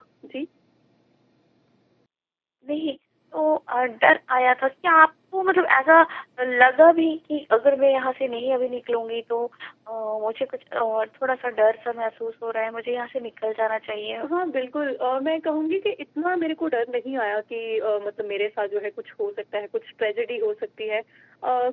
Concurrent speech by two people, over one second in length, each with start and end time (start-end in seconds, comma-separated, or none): none